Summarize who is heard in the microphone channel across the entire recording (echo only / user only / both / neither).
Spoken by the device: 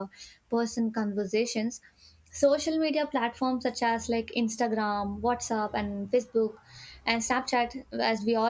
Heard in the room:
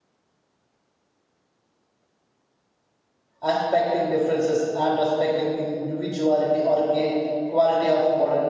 user only